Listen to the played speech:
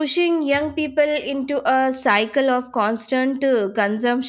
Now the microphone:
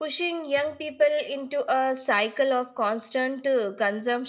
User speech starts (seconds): none

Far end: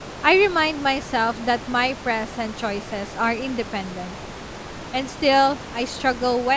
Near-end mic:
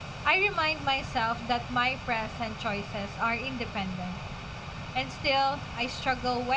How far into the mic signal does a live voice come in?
none

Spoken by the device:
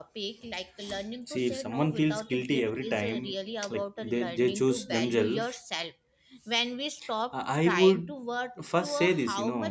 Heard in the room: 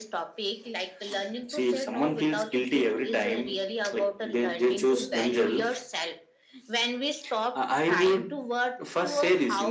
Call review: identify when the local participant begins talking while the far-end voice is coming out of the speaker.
none

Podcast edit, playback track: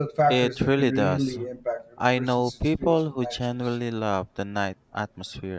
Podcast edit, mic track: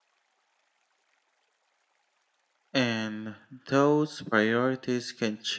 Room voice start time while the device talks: 2.8 s

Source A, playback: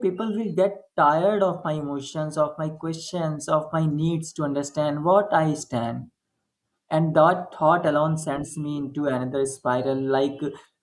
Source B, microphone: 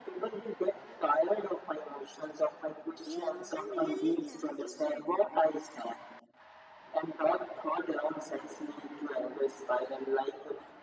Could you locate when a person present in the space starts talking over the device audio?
3.0 s

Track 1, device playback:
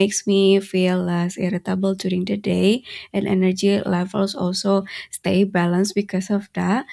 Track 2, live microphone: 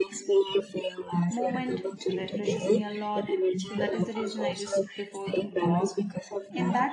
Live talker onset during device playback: 1.3 s

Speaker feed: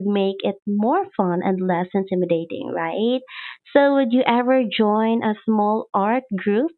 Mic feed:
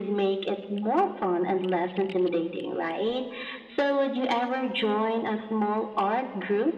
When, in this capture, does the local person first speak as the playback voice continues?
none

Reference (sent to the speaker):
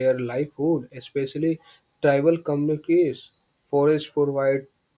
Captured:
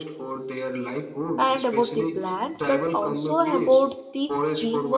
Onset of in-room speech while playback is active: 1.4 s

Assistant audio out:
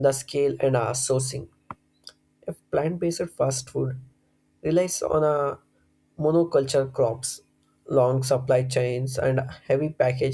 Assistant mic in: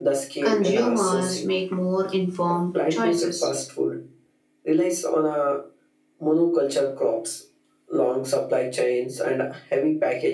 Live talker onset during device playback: 0.4 s

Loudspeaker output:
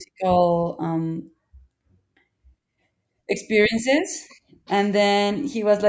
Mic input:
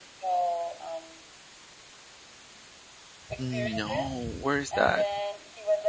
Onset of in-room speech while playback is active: 3.4 s

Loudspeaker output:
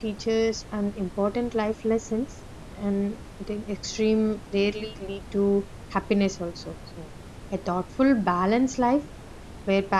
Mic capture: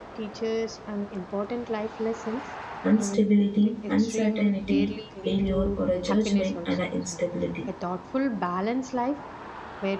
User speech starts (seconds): 2.9 s

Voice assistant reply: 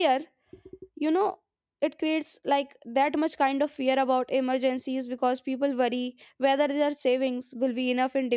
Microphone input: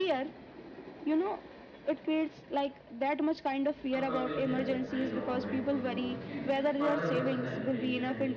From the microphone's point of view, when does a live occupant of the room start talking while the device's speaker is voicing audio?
3.9 s

